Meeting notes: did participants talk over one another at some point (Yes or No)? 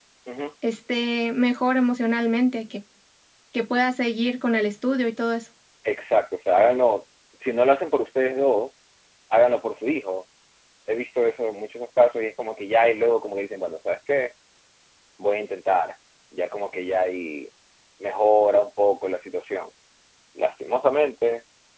No